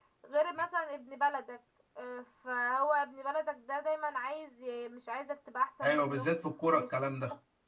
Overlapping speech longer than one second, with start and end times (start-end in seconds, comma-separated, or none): none